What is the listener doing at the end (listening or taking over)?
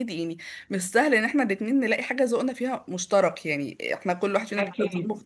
listening